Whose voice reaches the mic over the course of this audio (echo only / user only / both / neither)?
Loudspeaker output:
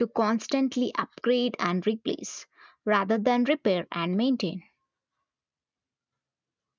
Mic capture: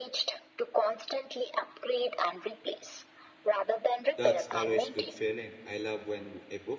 both